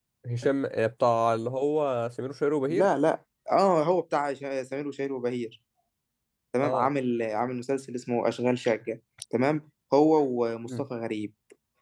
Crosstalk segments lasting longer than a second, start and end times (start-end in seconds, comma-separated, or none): none